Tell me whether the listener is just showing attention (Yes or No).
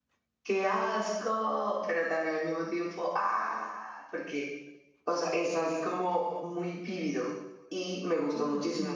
Yes